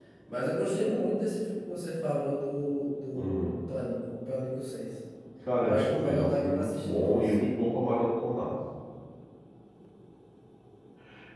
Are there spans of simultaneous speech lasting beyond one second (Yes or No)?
Yes